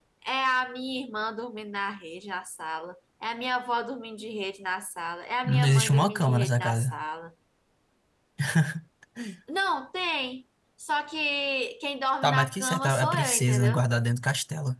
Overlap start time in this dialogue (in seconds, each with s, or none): 5.4 s